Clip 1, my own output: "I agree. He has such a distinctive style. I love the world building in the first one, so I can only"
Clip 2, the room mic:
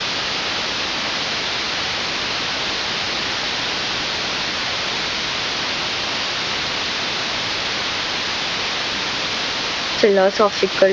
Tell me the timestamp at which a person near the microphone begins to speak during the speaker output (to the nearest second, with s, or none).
10 s